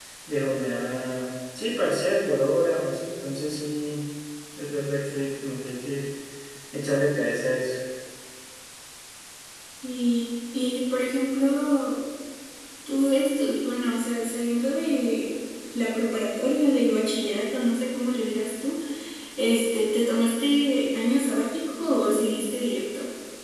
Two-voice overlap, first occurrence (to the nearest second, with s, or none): none